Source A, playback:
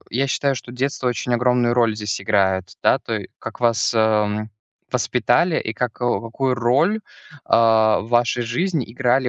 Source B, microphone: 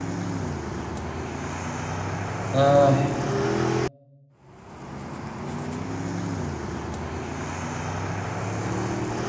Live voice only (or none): эй,